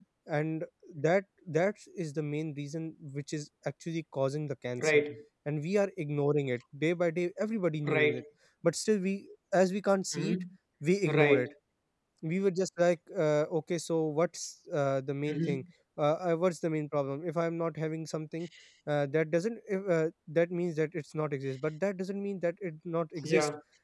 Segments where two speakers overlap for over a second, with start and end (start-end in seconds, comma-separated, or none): none